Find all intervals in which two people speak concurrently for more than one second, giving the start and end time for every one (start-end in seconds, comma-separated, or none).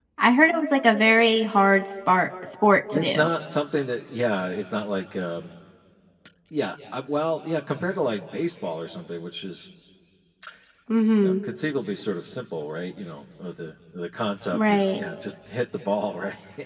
none